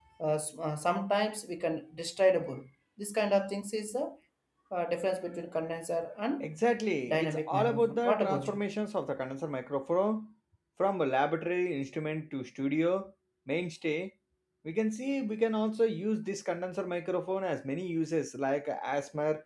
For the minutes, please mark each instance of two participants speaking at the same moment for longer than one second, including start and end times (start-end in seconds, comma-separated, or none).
7.1-8.6